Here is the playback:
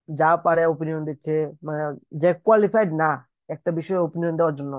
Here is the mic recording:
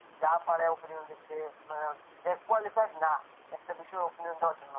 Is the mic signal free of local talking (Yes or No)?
Yes